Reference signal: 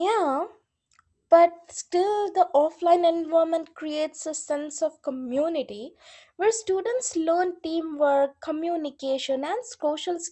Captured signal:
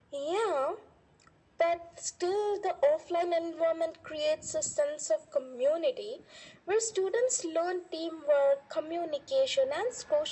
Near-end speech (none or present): none